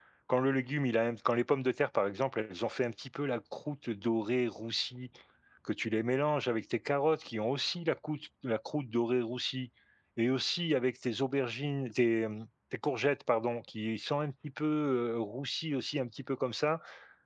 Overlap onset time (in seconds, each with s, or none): none